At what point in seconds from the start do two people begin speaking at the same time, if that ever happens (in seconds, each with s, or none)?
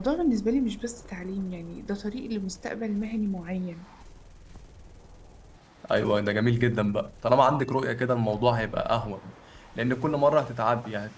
none